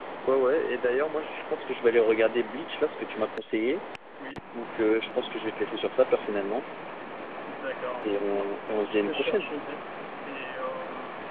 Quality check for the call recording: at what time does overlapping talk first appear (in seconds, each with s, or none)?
8.0 s